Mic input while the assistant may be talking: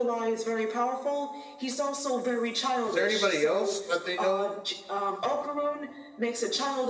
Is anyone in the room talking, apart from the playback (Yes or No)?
Yes